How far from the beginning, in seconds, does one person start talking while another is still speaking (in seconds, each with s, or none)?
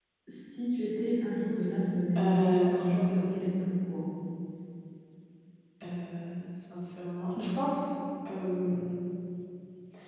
2.1 s